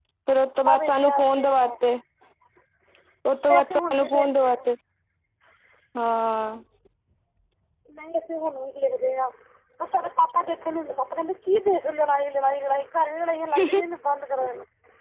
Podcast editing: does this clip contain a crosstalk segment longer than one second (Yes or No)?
Yes